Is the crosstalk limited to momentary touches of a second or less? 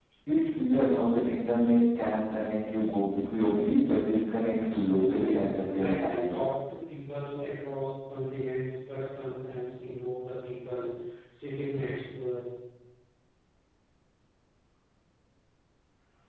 No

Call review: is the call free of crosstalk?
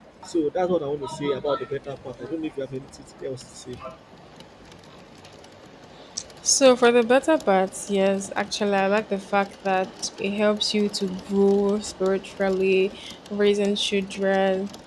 Yes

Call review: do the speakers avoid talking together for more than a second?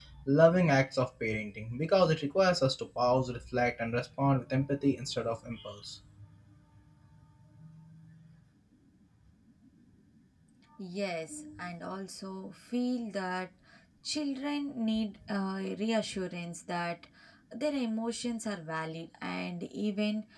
Yes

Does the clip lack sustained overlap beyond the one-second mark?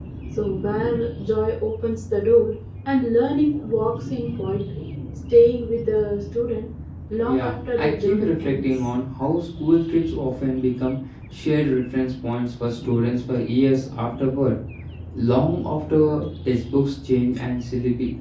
No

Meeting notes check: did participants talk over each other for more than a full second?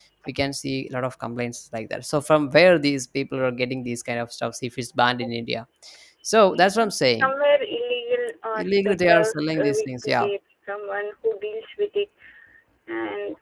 Yes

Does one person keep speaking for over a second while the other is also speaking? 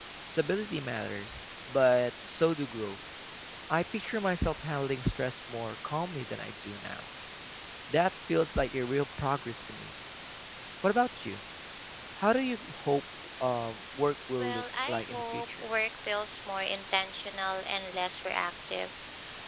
Yes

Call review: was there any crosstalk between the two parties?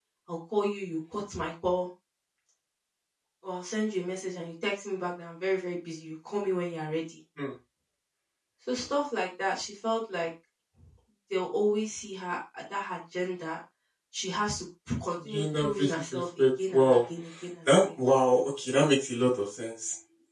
Yes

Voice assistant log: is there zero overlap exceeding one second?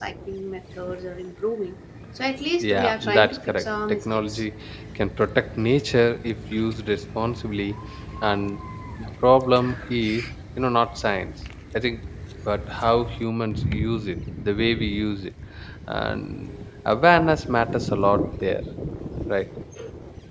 No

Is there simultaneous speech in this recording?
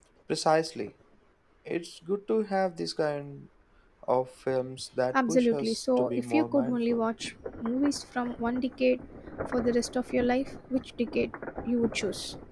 Yes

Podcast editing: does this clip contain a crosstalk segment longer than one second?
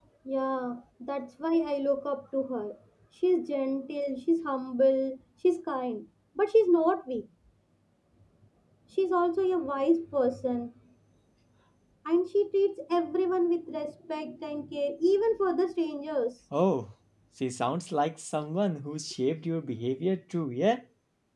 No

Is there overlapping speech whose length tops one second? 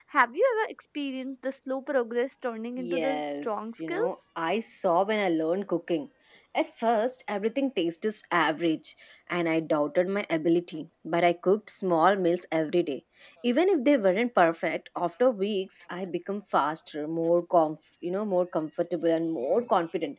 Yes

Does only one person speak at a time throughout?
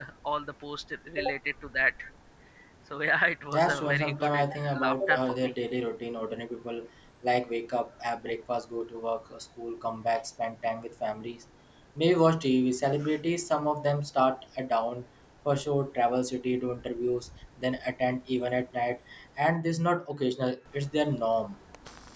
No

